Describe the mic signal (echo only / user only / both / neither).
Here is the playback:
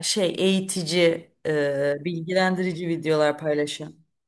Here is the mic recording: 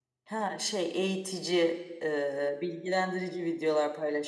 echo only